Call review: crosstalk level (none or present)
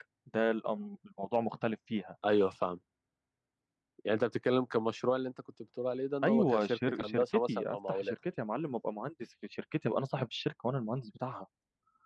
present